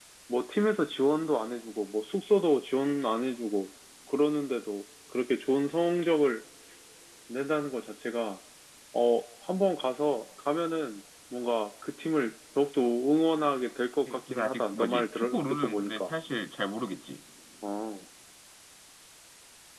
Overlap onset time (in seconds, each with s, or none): 14.1 s